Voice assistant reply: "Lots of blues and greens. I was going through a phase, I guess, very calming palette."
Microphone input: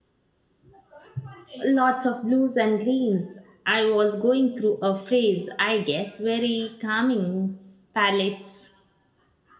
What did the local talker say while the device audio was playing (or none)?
none